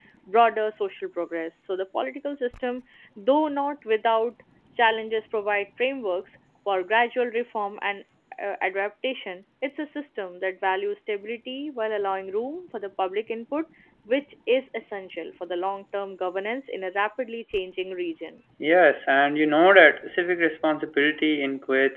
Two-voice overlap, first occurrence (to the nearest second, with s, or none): none